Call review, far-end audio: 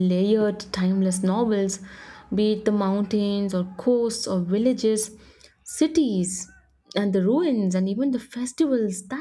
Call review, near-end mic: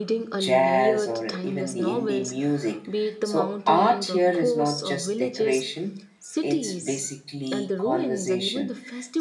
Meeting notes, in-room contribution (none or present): present